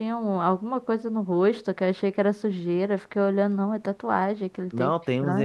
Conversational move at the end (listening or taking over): taking over